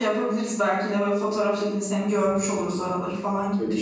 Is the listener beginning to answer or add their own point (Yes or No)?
Yes